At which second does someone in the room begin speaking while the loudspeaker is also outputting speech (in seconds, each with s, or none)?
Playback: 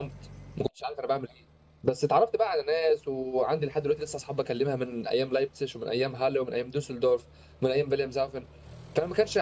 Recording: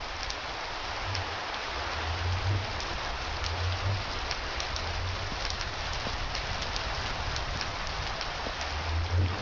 none